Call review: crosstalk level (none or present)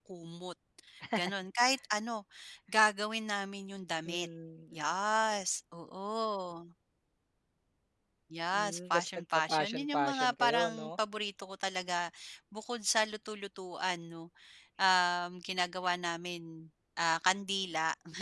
present